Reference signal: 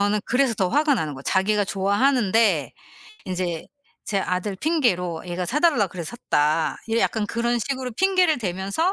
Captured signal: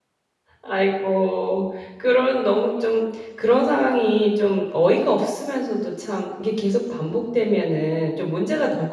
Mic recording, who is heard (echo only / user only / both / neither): user only